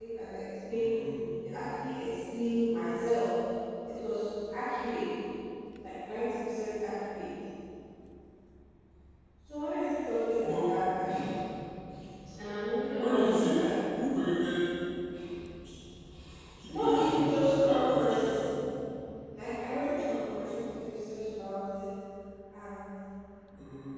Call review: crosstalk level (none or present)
present